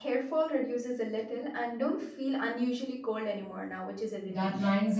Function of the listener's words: taking over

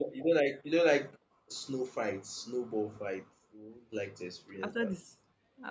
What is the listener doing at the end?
taking over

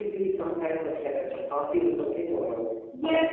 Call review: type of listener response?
taking over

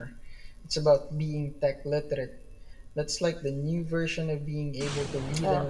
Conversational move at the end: taking over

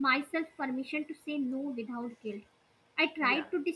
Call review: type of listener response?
listening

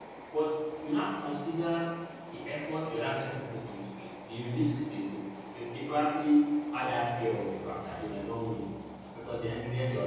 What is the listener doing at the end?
listening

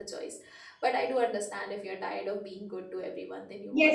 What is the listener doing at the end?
taking over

